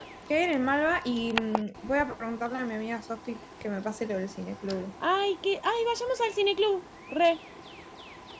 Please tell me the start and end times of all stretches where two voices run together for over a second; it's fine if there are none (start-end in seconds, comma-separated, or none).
none